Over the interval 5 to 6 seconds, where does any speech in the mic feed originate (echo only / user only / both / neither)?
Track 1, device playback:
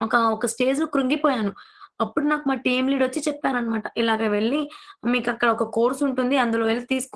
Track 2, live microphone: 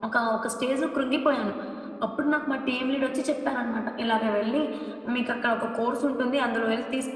echo only